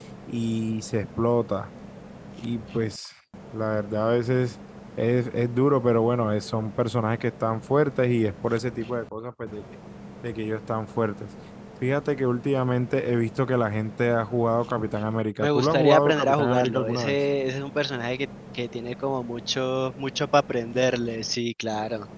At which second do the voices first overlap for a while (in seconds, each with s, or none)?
15.4 s